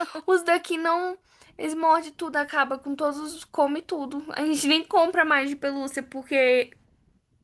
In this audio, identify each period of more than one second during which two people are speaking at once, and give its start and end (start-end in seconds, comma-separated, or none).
none